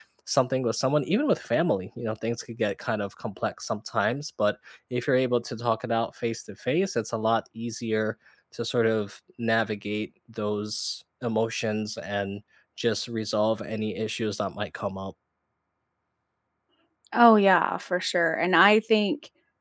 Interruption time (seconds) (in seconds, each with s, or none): none